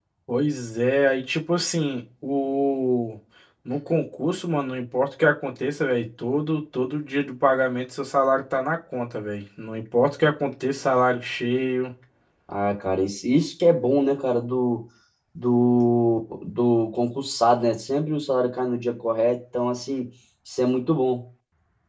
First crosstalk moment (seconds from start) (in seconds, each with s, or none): none